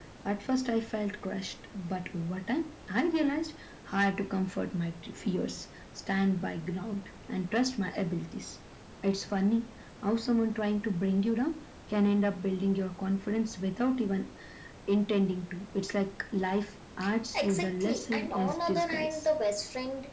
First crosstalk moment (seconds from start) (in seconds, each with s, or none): 17.4 s